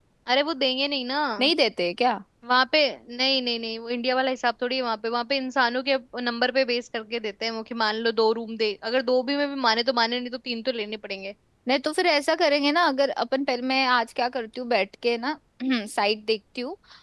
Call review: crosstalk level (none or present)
none